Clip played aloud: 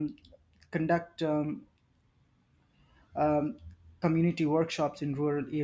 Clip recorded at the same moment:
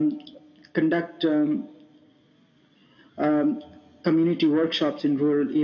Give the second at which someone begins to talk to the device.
none

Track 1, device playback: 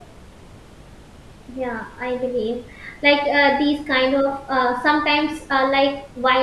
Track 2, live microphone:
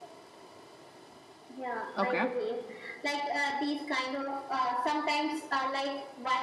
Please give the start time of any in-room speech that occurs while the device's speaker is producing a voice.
2.0 s

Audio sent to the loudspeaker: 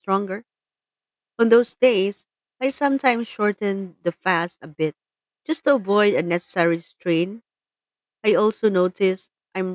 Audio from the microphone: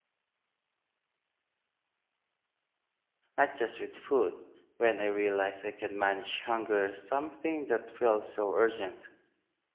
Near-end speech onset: 3.4 s

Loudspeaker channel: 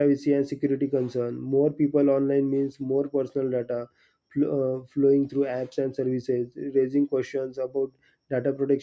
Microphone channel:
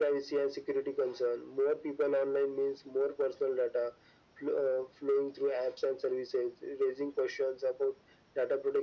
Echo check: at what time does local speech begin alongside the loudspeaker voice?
none

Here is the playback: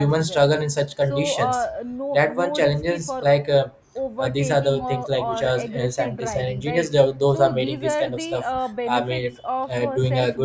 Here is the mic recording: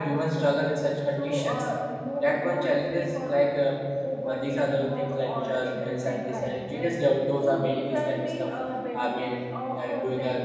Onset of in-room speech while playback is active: none

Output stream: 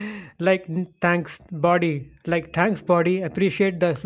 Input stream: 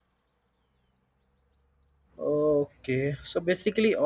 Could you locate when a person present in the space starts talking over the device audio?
2.2 s

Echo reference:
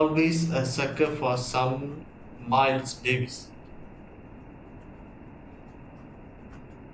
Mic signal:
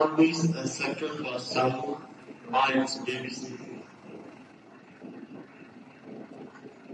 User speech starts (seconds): none

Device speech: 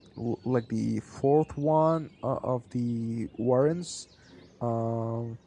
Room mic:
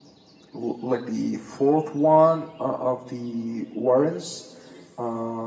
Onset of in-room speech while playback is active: none

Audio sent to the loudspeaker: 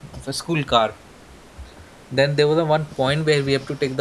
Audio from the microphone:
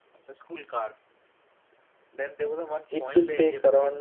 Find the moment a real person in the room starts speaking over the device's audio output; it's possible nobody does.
2.9 s

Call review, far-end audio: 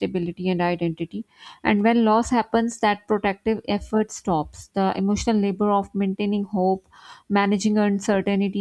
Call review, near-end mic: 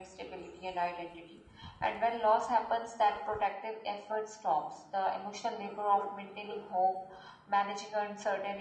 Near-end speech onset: none

